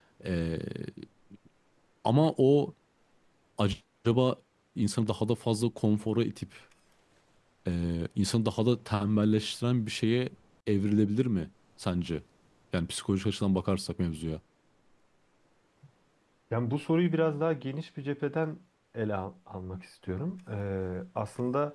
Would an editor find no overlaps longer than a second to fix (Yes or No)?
Yes